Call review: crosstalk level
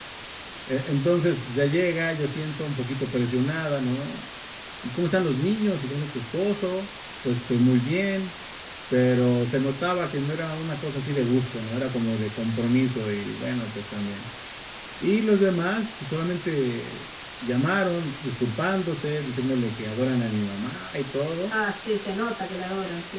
none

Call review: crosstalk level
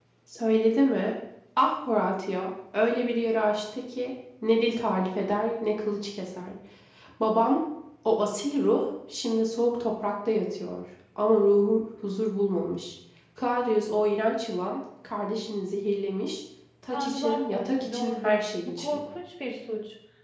present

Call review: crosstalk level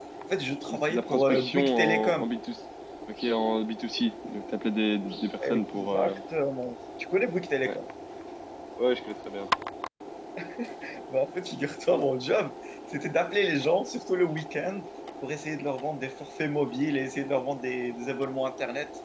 present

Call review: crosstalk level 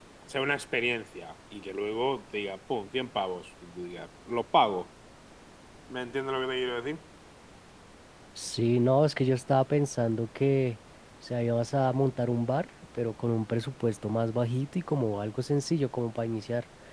none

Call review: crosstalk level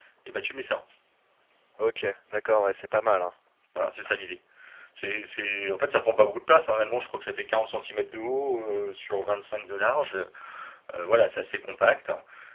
none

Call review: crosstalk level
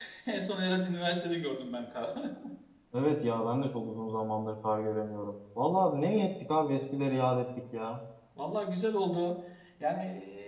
none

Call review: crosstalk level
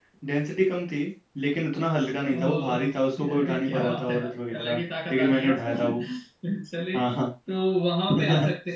present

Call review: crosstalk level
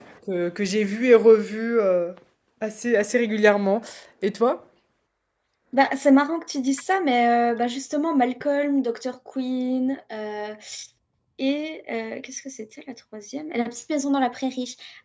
none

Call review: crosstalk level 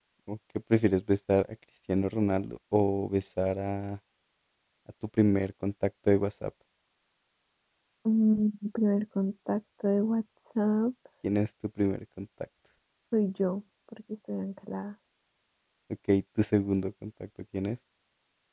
none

